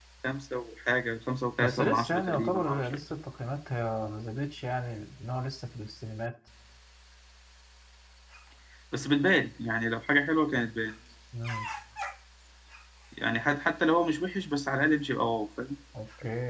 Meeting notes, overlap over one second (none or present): present